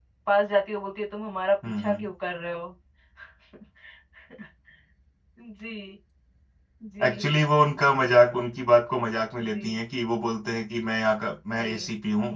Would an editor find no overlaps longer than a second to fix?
Yes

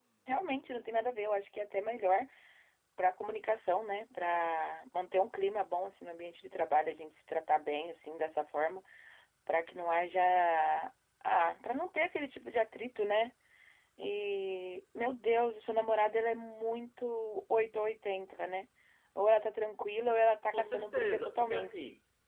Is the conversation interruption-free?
No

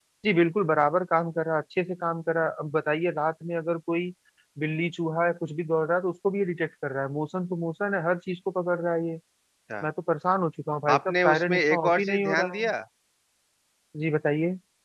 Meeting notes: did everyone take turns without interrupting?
No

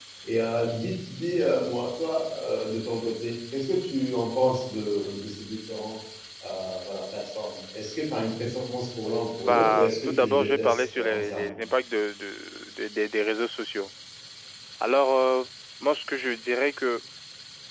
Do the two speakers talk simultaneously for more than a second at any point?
Yes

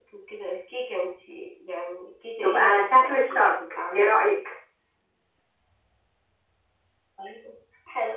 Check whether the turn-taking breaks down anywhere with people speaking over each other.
Yes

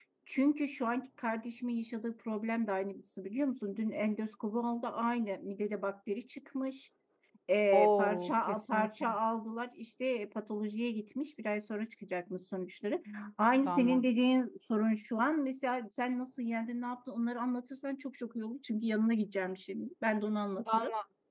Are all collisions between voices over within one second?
No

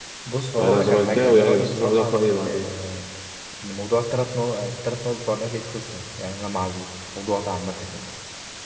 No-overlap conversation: No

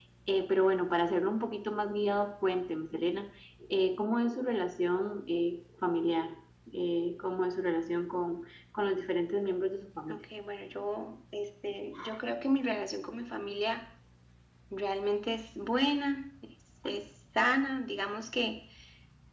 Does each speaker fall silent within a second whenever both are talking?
Yes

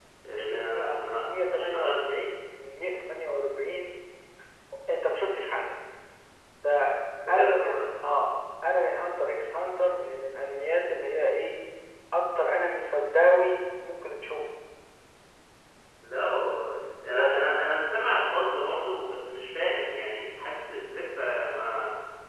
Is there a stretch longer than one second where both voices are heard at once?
Yes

